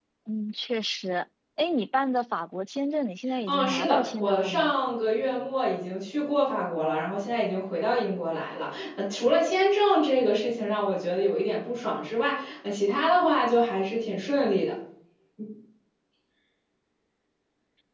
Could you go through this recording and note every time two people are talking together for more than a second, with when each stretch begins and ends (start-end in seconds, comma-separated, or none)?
3.5-4.7